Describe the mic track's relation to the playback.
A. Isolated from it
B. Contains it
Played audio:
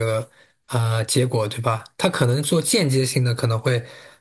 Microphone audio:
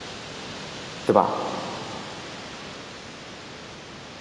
A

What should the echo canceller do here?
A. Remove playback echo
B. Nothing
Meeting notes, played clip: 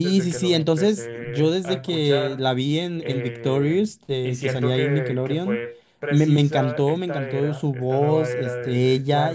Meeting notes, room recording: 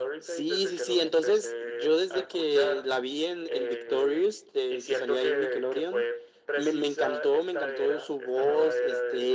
A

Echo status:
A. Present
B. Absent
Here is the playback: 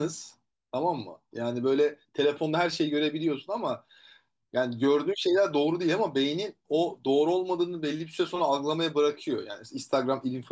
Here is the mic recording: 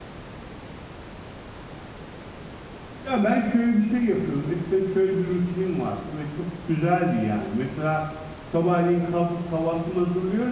B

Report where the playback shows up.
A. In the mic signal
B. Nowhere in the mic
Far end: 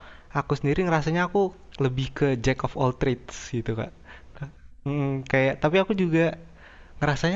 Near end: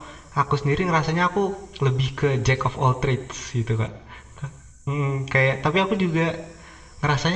A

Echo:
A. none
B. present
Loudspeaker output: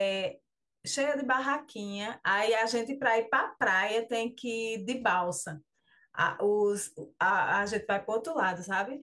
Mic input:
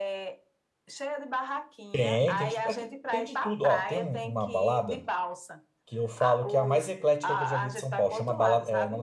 B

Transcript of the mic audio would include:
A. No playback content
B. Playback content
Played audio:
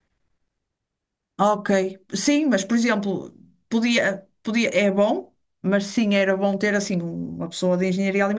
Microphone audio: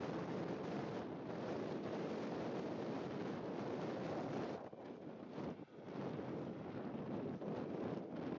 A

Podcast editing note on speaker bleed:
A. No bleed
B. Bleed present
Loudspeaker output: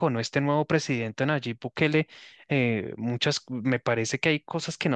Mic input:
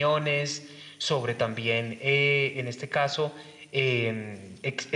A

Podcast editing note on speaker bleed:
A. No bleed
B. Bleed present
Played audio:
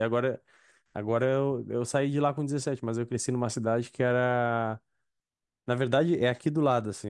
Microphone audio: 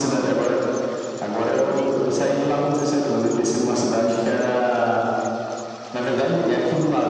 B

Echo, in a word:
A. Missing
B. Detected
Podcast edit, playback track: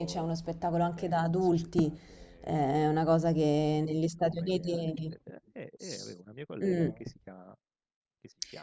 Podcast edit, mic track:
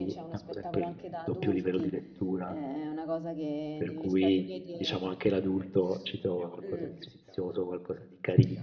B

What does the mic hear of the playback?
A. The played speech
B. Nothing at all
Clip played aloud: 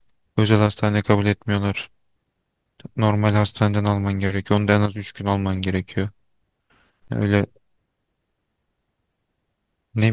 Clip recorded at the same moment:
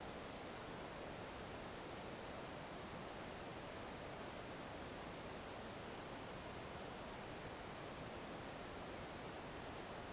B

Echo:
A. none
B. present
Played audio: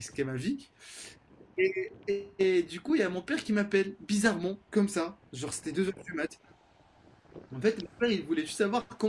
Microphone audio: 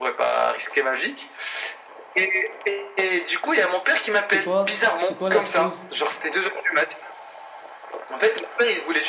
B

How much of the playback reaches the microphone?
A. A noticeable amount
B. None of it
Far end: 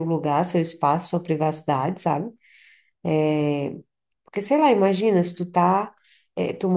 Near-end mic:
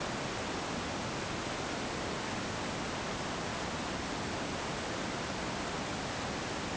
B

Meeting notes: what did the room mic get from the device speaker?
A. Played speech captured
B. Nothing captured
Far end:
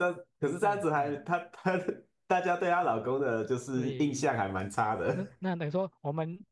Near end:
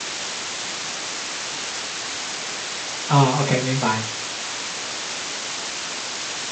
B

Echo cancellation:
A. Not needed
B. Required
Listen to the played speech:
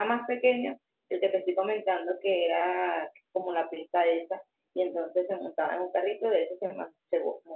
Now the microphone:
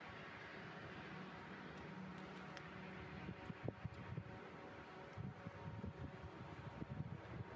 A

